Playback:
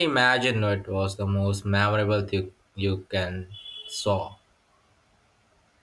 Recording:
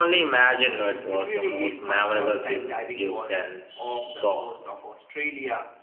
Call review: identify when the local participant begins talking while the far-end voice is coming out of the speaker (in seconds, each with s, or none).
0.5 s